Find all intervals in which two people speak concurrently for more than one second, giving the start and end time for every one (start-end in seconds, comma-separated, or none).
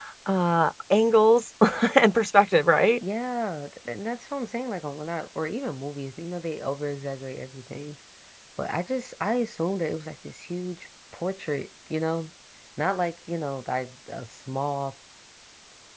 none